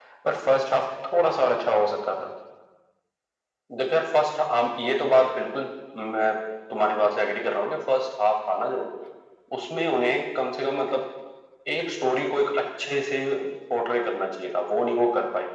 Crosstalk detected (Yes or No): No